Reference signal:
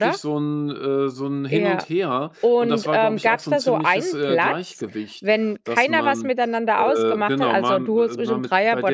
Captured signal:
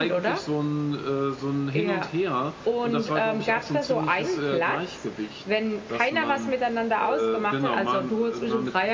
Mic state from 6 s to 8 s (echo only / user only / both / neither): echo only